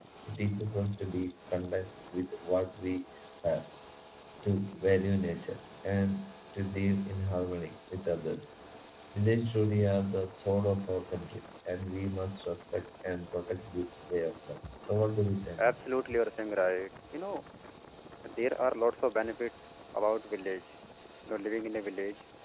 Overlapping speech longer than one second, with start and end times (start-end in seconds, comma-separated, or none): none